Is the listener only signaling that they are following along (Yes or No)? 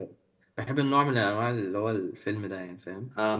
No